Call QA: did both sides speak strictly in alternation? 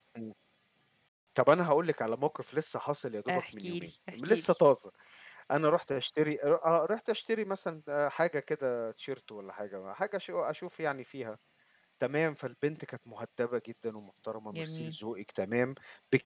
No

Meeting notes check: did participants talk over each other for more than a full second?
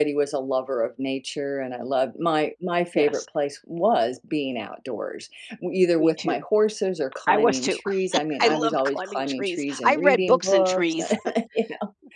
Yes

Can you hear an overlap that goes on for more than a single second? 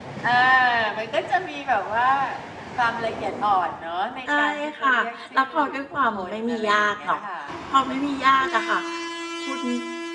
Yes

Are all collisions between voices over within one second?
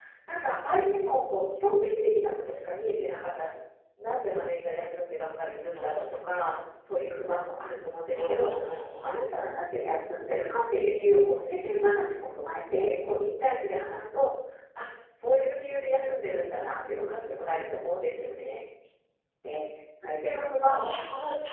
Yes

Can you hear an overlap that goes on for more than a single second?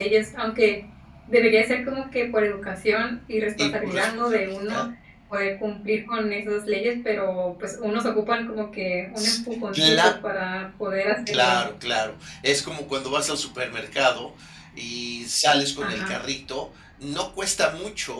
Yes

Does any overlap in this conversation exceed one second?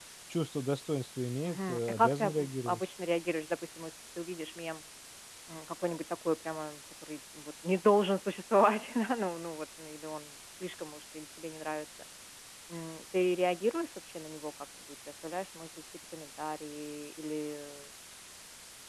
Yes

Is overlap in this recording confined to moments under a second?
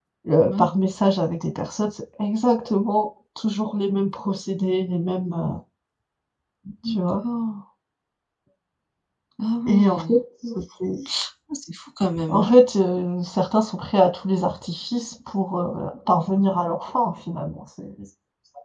Yes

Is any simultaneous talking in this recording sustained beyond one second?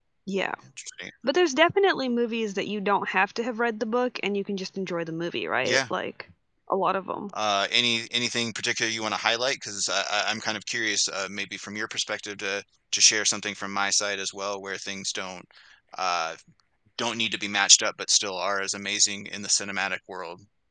No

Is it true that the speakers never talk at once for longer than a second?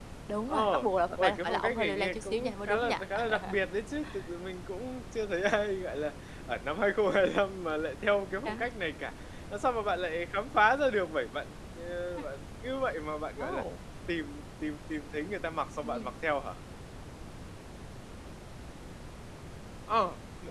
No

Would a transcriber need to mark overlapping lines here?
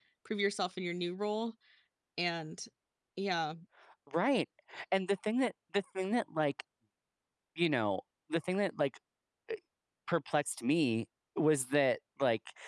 No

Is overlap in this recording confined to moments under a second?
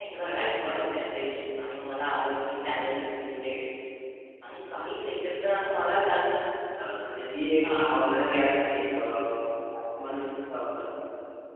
Yes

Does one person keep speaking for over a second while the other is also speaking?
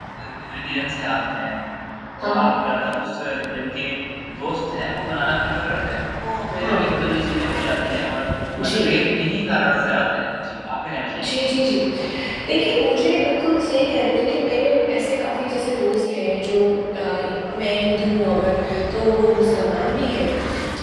No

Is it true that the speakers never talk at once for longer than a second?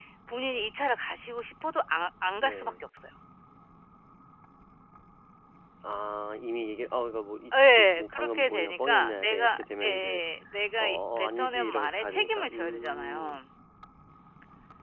No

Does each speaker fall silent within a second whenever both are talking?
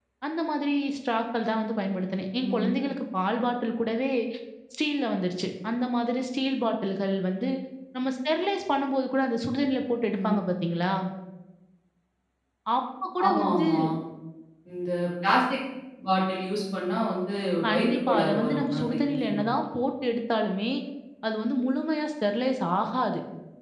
No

